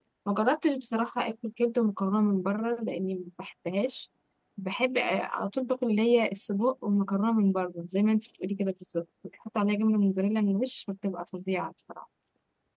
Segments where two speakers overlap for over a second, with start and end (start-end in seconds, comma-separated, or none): none